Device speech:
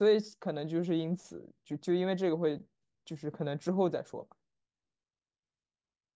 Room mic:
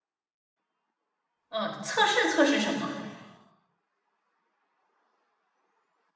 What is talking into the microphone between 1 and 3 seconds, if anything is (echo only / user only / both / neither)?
user only